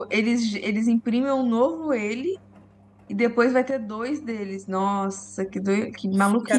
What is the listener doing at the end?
taking over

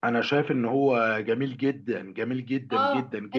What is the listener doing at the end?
taking over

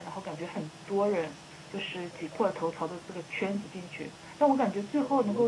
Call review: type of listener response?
listening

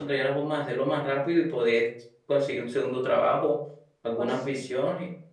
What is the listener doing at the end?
listening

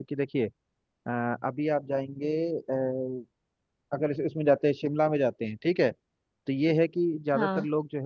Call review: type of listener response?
listening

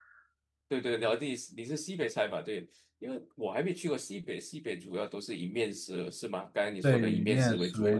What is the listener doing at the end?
taking over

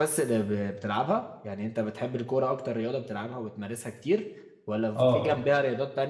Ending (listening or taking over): listening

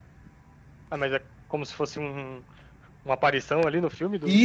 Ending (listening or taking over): taking over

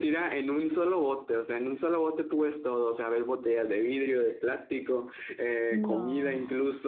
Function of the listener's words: listening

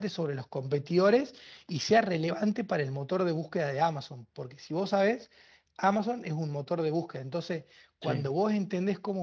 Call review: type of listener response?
listening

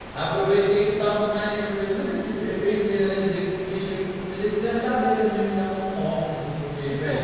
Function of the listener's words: taking over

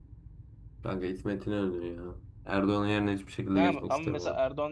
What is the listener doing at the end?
taking over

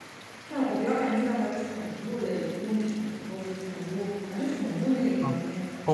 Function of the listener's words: taking over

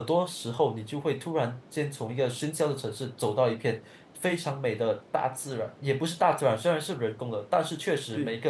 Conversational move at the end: listening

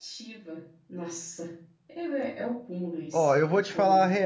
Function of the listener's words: taking over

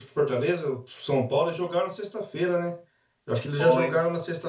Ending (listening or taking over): listening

